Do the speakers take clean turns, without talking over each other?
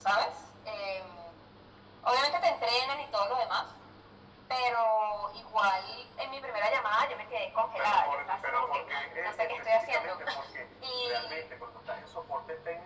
No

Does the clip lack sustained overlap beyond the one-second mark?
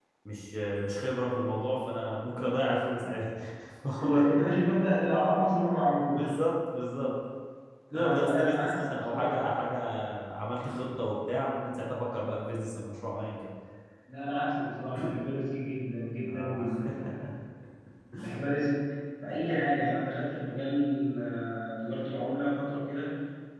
No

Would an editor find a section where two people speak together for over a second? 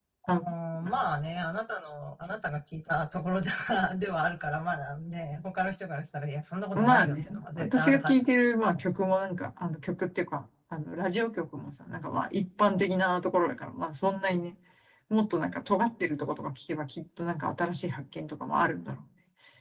Yes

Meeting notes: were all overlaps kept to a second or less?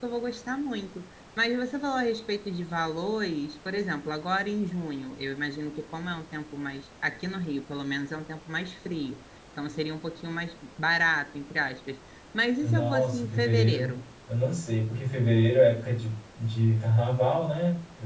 No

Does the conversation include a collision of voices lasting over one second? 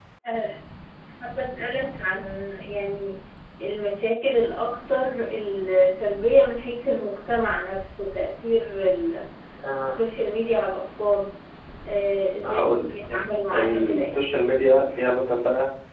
Yes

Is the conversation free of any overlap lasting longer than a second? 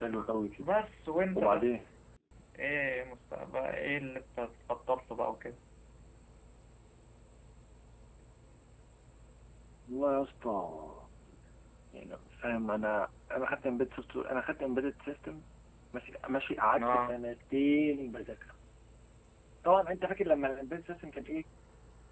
Yes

